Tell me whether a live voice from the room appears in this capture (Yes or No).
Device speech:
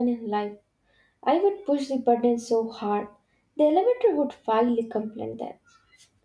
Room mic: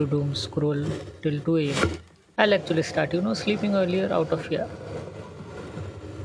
Yes